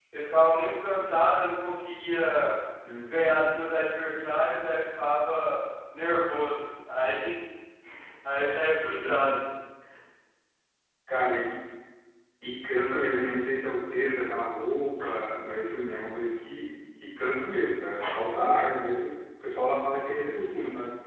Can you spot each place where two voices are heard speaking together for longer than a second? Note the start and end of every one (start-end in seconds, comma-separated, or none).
none